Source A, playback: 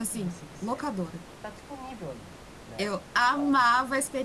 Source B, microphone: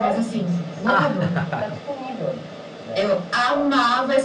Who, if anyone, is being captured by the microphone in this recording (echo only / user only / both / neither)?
both